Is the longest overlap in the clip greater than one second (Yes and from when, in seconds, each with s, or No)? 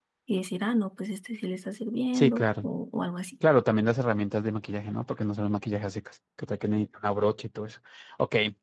No